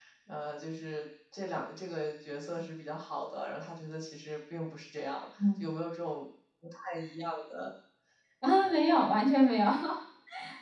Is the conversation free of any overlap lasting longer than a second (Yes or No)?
Yes